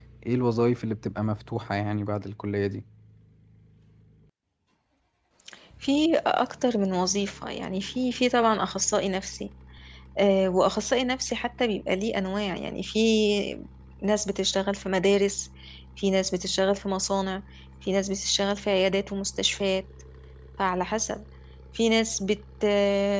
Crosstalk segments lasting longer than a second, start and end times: none

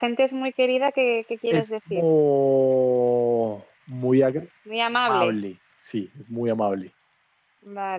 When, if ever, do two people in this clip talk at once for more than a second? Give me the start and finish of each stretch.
none

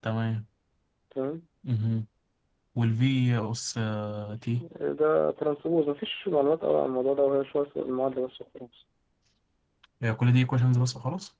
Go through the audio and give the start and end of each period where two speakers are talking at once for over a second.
none

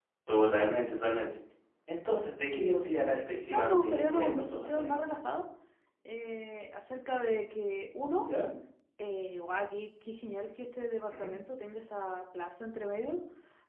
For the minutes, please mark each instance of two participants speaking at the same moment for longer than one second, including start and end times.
3.5-5.0

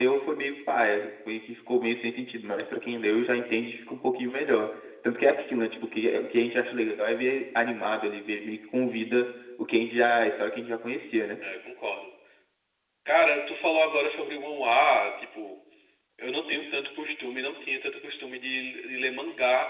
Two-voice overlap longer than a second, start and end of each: none

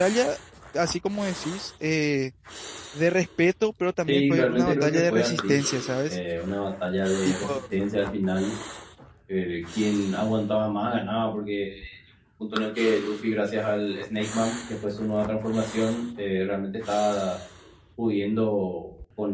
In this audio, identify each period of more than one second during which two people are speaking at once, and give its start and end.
4.1-5.5

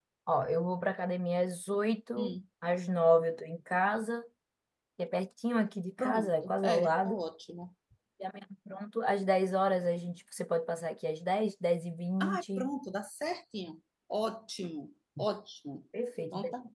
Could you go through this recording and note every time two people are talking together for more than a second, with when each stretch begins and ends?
6.0-7.2

